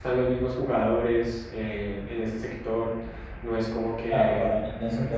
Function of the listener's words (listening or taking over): taking over